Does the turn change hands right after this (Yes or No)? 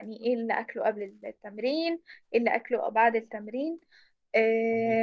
No